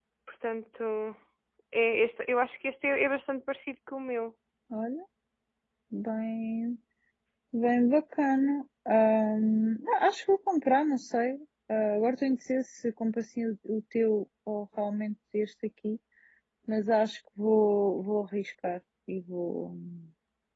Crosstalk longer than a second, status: none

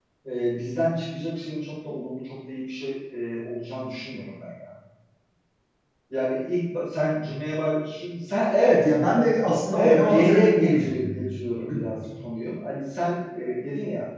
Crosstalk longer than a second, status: present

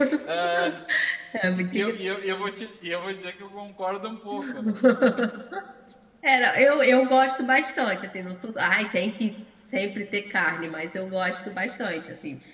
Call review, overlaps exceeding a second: none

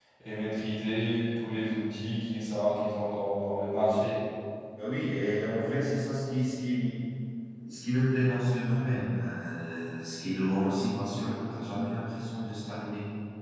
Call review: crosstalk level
none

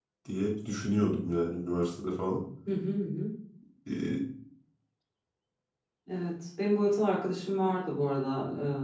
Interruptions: none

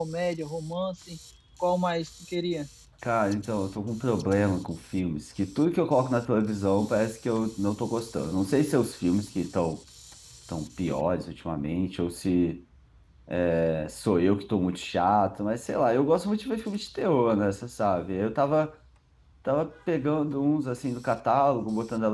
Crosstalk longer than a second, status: none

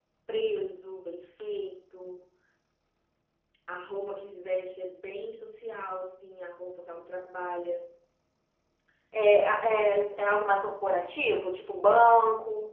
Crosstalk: none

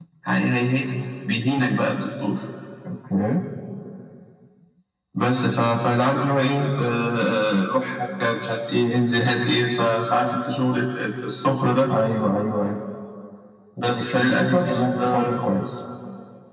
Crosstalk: present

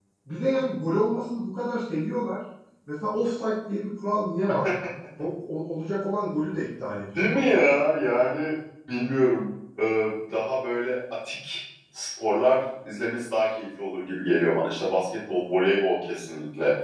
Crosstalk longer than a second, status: none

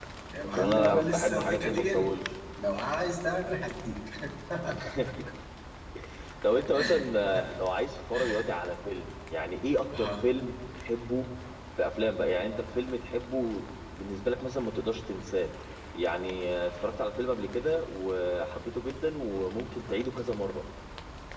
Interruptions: present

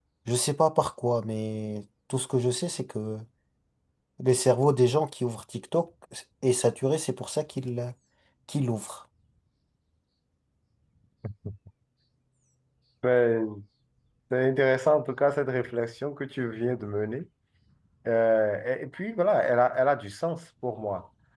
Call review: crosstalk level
none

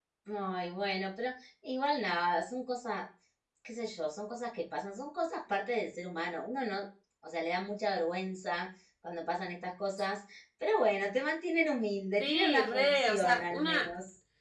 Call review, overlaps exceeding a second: present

